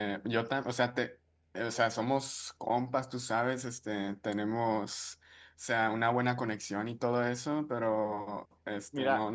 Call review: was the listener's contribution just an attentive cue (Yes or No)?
Yes